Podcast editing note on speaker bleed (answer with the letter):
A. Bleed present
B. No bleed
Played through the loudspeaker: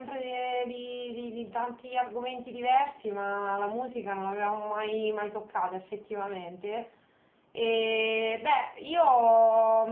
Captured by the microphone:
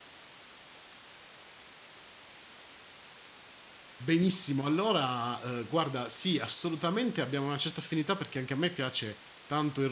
B